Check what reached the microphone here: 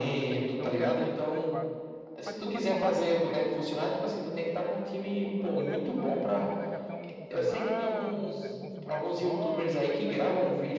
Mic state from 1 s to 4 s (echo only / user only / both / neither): both